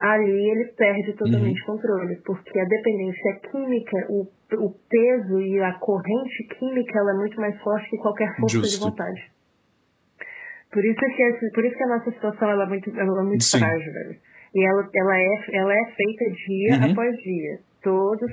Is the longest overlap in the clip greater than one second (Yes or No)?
No